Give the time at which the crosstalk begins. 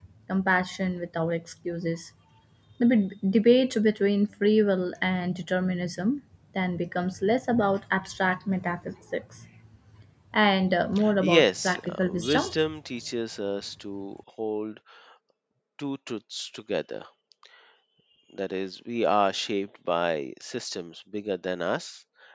11 s

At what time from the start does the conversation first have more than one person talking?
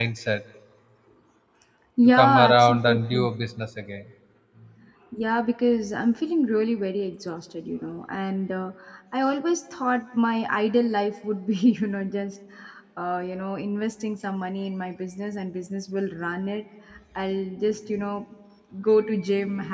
2 s

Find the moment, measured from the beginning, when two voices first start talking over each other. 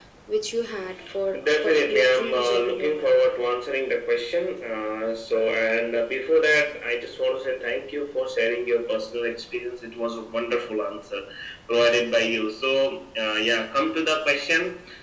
1 s

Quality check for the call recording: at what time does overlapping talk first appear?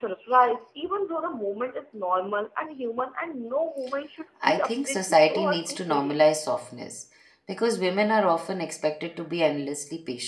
4 s

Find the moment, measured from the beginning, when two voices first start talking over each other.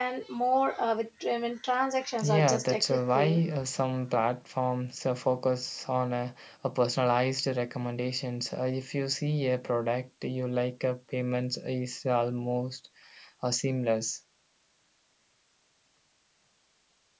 2 s

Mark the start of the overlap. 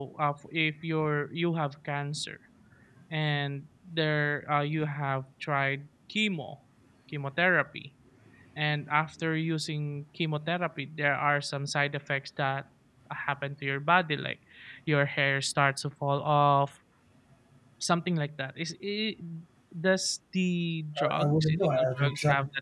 21 s

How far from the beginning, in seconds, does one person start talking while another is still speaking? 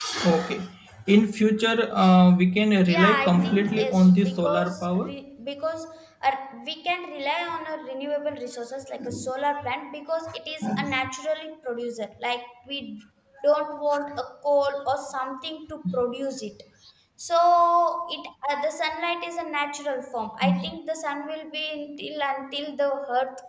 3 s

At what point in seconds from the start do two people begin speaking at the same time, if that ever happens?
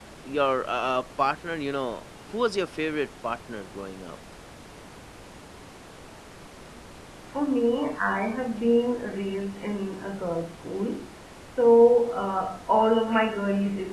none

